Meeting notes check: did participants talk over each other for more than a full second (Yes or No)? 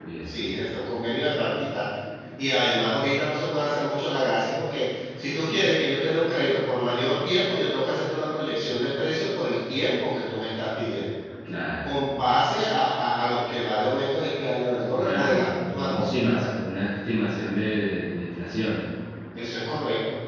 Yes